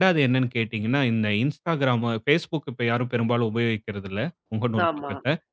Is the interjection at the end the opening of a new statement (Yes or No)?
No